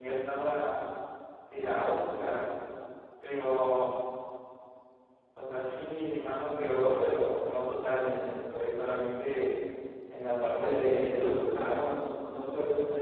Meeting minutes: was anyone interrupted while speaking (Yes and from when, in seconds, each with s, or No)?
Yes, from 10.6 s